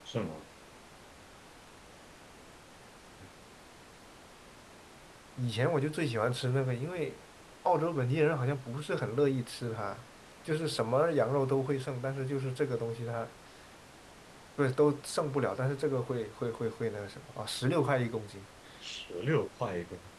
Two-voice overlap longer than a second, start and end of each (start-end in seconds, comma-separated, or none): none